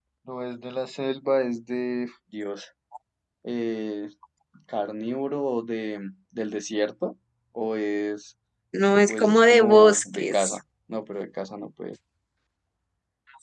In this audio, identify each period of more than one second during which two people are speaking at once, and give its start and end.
9.1-10.6

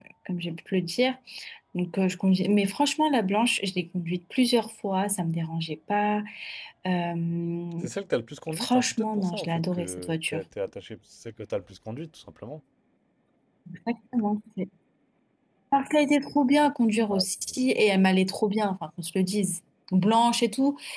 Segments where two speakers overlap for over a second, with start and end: 8.5-10.4

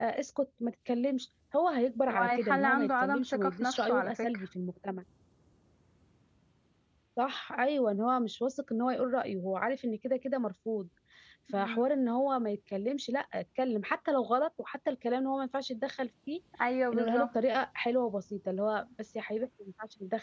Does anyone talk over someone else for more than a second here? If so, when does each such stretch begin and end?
2.1-4.1

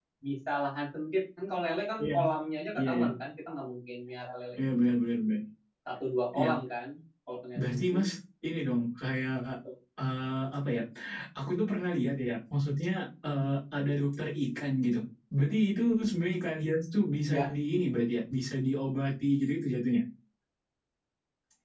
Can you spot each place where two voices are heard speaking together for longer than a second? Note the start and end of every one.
none

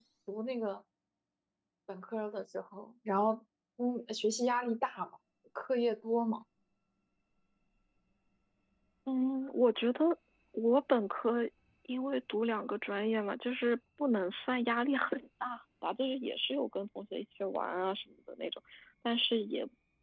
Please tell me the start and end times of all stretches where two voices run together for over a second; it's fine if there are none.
none

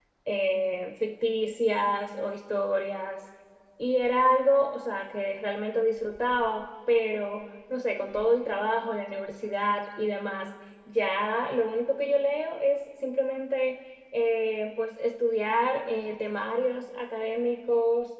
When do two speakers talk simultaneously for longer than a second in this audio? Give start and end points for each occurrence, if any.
none

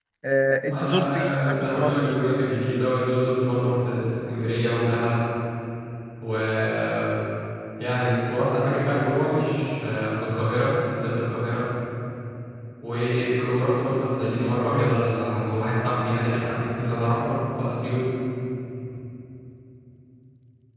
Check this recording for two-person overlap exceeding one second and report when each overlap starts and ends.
0.7-2.1

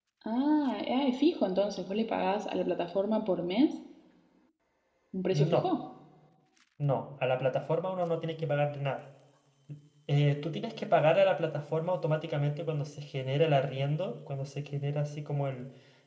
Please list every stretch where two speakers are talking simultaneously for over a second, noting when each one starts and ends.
none

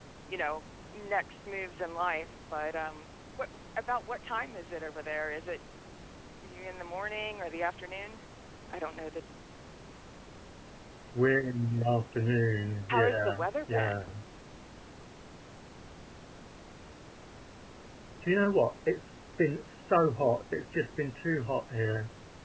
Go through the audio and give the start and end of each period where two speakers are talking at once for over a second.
12.9-14.1

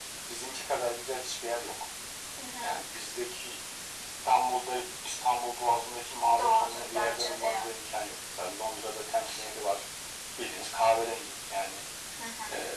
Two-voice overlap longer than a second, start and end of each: 6.4-7.7

